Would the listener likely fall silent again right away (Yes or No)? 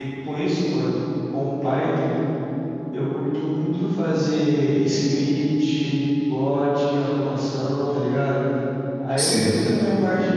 Yes